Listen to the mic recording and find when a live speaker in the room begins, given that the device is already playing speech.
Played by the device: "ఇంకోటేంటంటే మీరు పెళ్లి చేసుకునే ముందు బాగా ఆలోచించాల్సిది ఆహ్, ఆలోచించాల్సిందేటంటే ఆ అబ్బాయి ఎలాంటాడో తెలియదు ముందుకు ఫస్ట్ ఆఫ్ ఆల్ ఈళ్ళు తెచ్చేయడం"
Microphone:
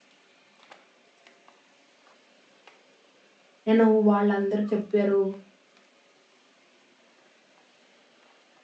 3.7 s

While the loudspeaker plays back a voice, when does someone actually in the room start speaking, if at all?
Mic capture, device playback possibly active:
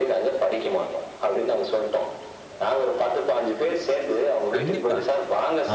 4.5 s

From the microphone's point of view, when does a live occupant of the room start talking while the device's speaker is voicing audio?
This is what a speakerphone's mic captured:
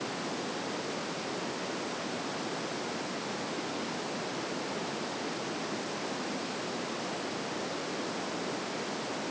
none

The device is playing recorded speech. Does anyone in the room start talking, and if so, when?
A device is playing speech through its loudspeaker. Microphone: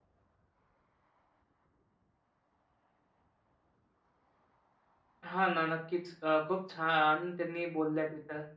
5.2 s

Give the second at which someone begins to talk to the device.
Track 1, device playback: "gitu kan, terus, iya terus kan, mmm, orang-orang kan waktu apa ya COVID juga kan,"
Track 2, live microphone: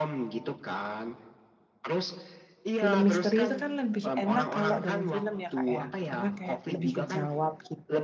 2.8 s

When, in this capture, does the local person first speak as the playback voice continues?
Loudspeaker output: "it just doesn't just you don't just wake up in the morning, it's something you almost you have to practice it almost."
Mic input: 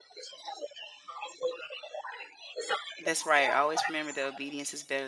3.0 s

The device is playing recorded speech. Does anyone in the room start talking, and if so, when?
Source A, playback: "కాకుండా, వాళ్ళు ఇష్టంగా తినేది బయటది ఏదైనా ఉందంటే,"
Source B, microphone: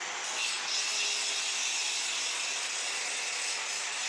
none

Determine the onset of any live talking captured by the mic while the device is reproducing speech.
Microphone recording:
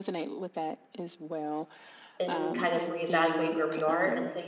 2.2 s

